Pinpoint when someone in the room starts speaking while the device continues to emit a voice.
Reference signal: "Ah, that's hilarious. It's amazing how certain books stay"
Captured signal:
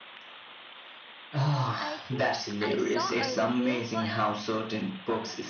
1.8 s

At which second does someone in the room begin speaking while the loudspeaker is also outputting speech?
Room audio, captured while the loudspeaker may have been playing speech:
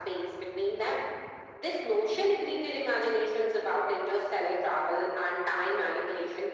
none

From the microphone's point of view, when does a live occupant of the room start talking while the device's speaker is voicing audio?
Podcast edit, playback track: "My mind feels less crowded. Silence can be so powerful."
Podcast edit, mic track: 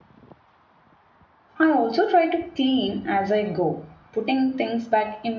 1.6 s

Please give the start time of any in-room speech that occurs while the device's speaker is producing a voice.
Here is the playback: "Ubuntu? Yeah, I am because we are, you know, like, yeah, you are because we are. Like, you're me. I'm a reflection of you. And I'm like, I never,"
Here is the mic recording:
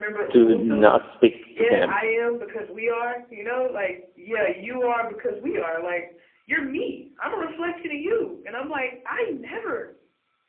0.3 s

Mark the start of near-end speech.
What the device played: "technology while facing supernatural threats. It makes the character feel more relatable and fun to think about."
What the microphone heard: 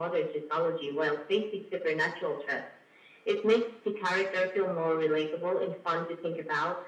none

